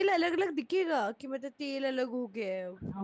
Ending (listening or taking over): taking over